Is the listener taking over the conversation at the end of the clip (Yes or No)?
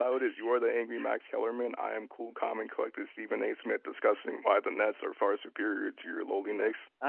Yes